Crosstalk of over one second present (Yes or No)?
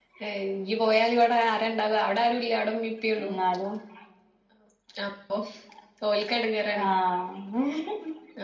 No